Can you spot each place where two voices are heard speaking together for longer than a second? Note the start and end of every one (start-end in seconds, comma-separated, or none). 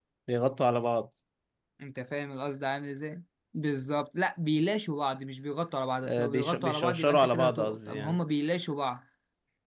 6.0-8.2